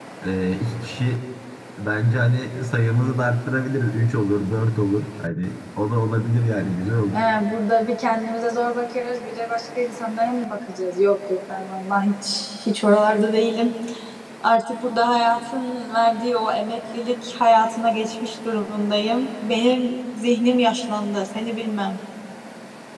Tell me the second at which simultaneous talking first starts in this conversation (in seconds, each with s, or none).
none